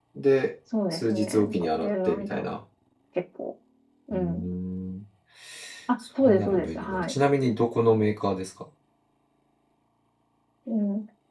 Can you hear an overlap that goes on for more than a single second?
Yes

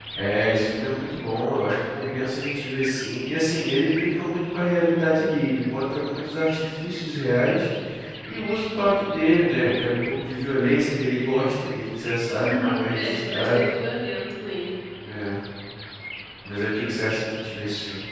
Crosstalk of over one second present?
Yes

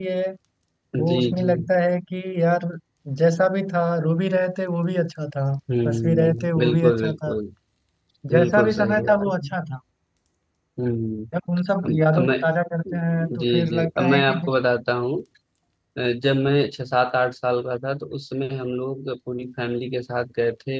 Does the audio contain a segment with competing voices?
Yes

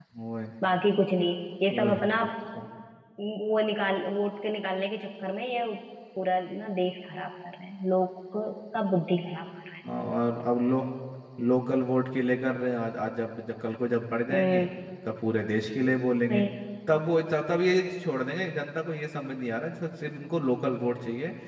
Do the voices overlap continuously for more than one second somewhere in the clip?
No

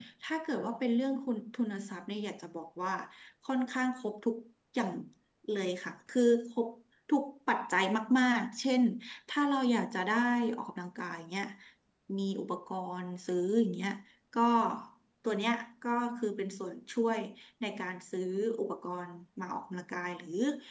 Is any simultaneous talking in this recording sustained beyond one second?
No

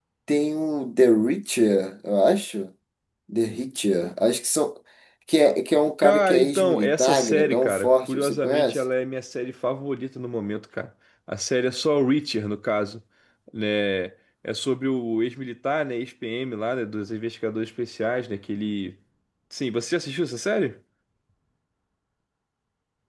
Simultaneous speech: Yes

